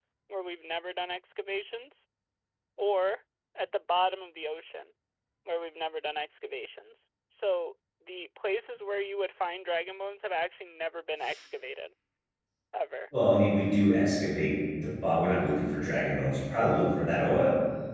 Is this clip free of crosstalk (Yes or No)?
Yes